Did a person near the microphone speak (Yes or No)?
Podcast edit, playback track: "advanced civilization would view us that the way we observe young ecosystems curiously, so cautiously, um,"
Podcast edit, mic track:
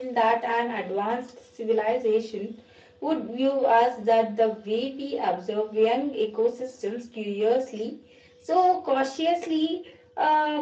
No